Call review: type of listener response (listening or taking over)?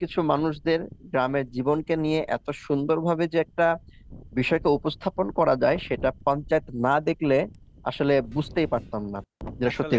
taking over